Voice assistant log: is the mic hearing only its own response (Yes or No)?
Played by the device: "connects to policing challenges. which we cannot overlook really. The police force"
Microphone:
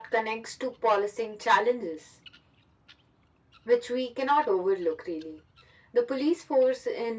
Yes